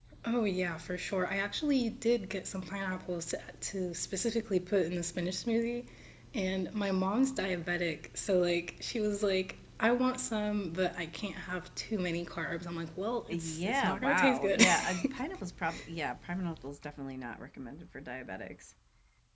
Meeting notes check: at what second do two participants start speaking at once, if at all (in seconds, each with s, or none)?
13.3 s